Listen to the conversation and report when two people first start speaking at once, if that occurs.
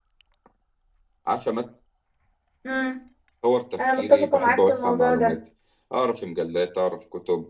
3.9 s

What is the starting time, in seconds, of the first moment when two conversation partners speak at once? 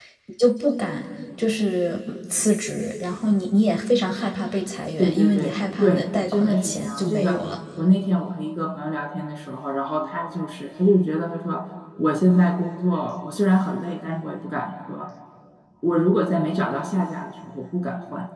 5.0 s

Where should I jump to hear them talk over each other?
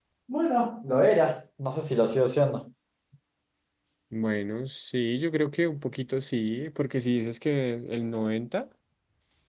none

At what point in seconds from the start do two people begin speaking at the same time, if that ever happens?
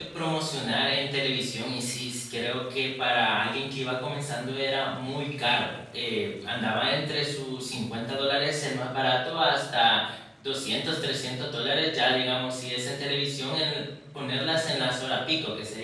none

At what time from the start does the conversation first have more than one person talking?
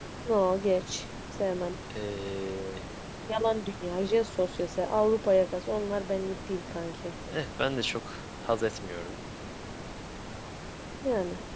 none

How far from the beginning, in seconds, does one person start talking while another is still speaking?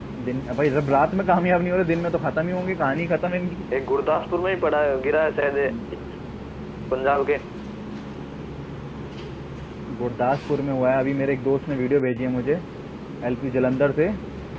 none

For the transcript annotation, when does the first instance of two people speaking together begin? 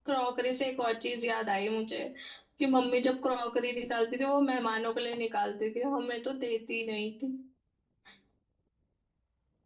none

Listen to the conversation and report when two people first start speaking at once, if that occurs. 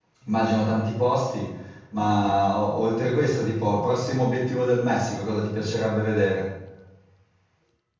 none

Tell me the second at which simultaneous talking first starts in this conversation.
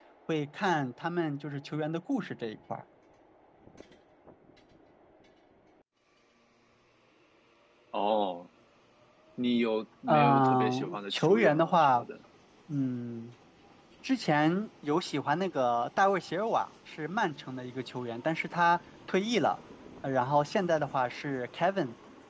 10.1 s

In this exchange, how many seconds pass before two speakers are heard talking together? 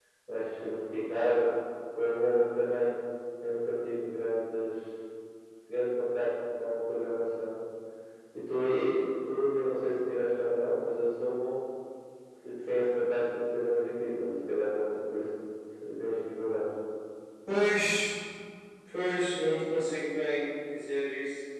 none

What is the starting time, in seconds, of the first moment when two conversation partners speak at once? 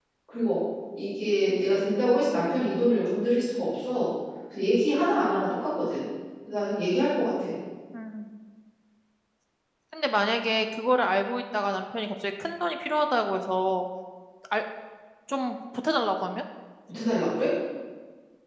none

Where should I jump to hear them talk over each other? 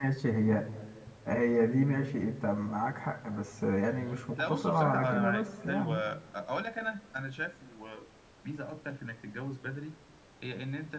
4.4 s

